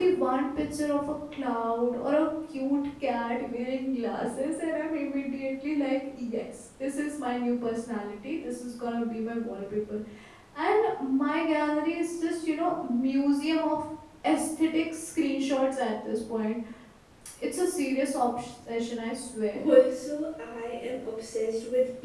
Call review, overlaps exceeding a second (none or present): none